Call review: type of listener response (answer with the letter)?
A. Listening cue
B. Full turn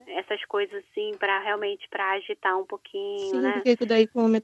B